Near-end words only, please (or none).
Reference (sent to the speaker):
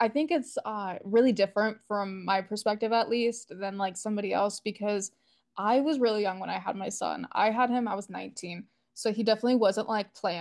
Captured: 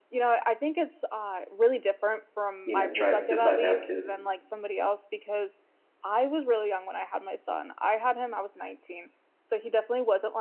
you know, try decide to have kids?